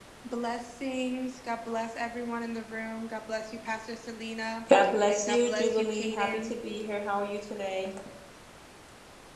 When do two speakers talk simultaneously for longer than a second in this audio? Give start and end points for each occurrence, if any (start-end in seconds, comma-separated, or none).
5.1-6.5